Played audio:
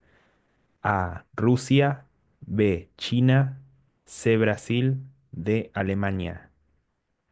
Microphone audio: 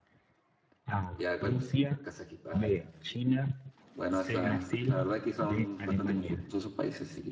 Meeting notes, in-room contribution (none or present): present